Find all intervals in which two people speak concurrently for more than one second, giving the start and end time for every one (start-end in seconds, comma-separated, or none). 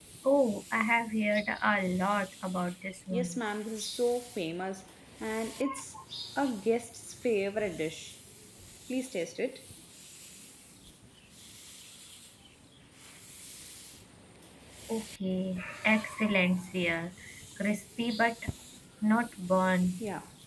none